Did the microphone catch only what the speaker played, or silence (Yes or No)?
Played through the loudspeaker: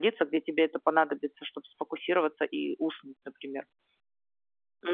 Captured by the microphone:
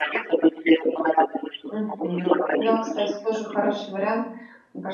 No